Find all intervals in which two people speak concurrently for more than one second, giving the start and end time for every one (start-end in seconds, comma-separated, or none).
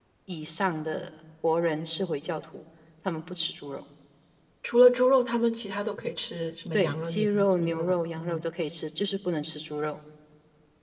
6.7-8.4